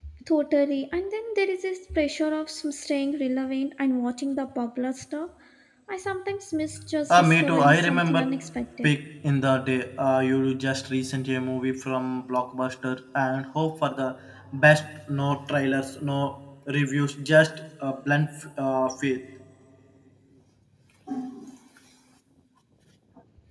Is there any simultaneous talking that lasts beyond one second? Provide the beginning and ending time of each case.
7.1-8.3

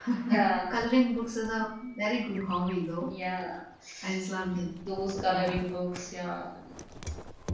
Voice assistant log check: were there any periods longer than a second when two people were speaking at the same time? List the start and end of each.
none

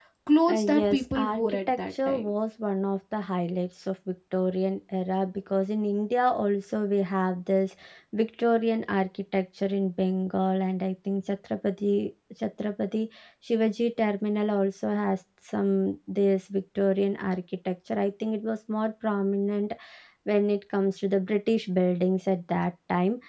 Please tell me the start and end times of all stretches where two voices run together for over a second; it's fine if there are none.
0.5-2.3

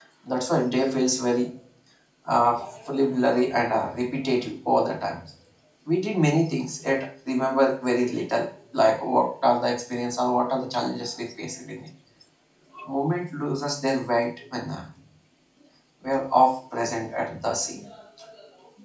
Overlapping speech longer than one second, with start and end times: none

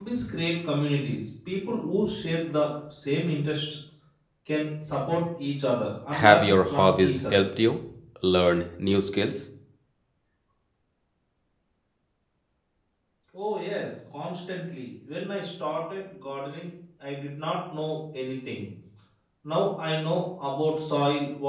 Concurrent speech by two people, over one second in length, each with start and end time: 6.1-7.4

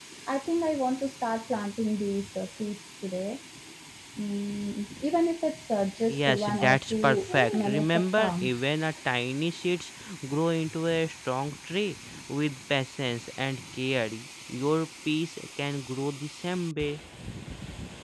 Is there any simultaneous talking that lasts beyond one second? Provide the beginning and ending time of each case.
6.1-8.5

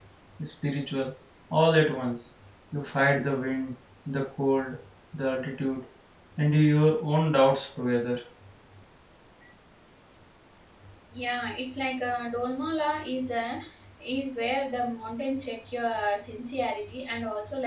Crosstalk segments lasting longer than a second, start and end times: none

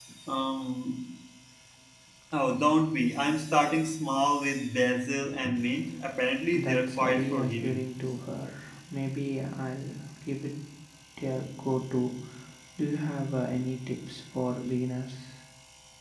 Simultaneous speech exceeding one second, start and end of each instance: 6.5-7.8

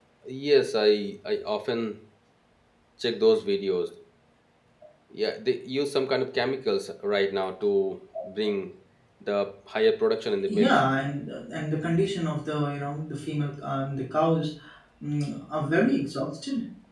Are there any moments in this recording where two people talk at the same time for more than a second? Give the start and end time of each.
none

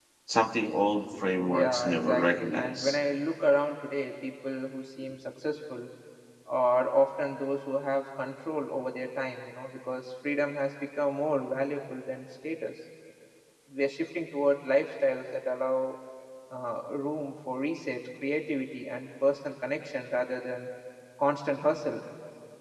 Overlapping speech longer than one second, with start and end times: 1.5-3.0

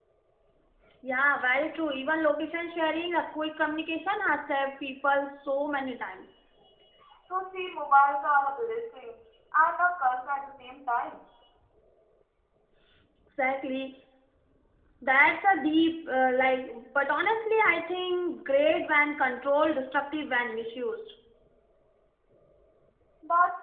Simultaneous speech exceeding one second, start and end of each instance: none

